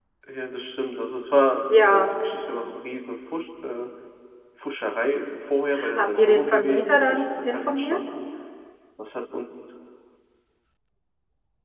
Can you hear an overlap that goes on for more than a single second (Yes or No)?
Yes